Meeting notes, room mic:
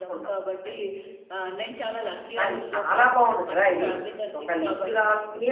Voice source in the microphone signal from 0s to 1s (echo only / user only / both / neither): both